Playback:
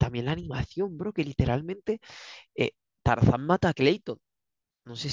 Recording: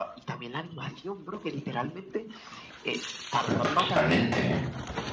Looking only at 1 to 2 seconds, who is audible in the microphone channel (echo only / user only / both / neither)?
echo only